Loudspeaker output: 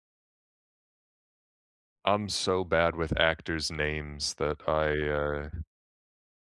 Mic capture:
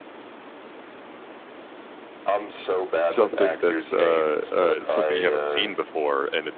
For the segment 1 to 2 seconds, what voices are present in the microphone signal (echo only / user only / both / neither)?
neither